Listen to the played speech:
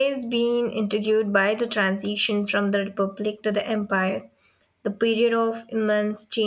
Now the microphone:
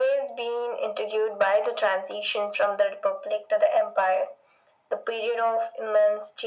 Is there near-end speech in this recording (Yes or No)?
No